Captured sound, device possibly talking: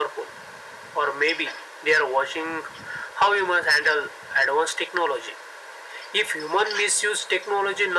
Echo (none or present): present